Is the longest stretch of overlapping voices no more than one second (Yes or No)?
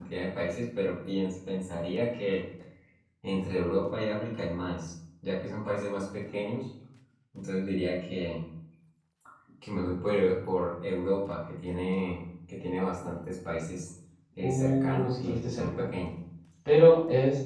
No